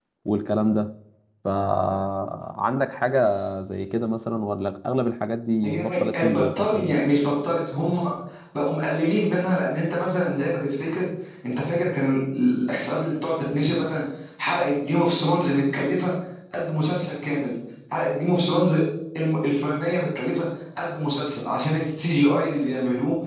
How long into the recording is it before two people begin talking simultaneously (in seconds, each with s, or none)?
5.6 s